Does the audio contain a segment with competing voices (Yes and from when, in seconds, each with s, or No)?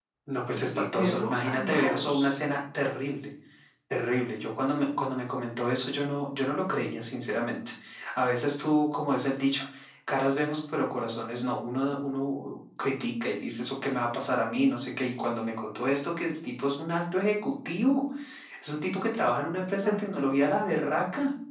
Yes, from 0.5 s